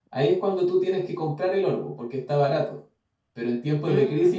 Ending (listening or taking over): listening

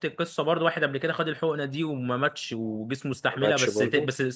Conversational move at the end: listening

